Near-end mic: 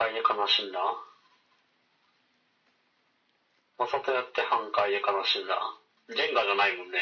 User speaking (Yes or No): No